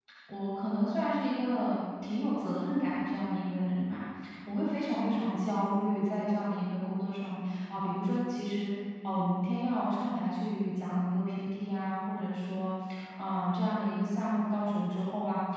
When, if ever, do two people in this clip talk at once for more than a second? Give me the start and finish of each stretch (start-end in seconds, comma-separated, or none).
none